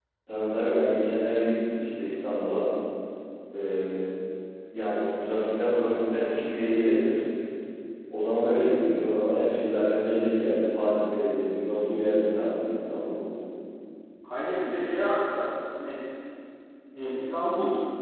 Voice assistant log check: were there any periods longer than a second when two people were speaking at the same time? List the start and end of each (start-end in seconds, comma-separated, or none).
none